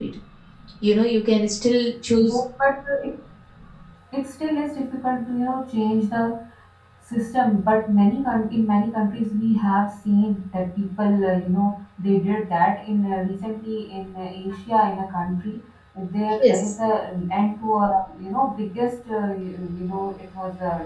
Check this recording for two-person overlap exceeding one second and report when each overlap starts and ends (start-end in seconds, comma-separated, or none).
none